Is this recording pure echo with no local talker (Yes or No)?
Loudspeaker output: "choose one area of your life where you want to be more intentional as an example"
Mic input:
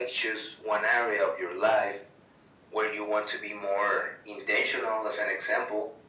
Yes